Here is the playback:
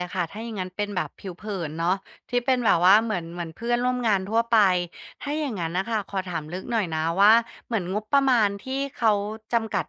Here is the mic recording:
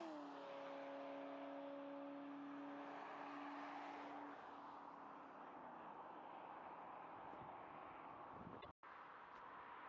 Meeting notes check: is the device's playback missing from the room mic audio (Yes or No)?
Yes